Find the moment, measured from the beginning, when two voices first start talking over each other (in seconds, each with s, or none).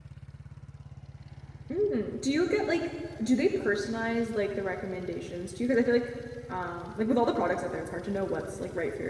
none